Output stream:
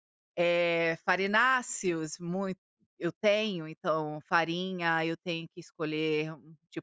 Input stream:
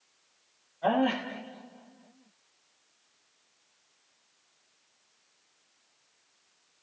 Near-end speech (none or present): present